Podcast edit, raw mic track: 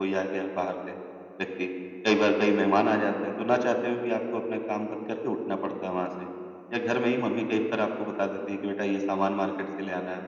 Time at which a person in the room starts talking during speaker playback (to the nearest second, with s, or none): none